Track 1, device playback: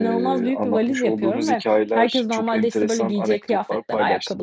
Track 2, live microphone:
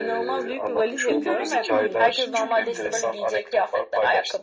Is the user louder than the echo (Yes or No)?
No